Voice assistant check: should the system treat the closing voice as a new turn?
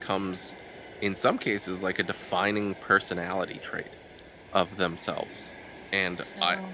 No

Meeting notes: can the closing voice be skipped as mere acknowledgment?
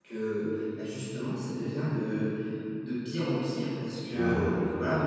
Yes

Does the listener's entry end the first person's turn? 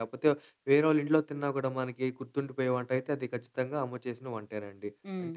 No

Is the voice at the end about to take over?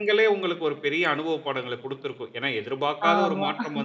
No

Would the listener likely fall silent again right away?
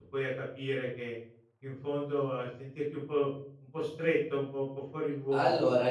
No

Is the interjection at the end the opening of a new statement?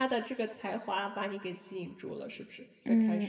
Yes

